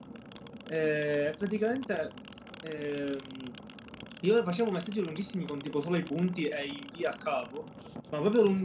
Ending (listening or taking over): listening